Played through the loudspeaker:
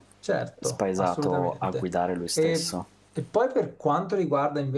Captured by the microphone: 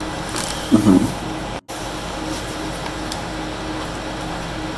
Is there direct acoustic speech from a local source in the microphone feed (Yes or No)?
Yes